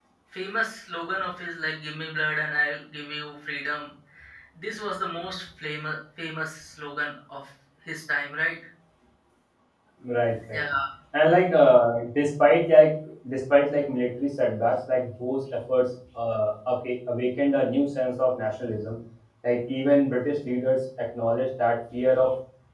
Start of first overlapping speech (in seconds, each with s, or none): none